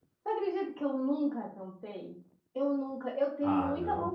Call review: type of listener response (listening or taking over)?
listening